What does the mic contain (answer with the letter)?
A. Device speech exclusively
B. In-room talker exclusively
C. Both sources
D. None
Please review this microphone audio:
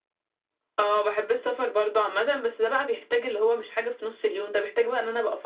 A